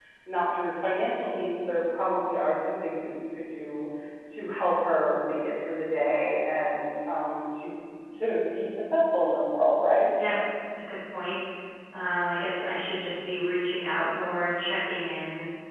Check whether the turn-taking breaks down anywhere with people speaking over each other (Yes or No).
No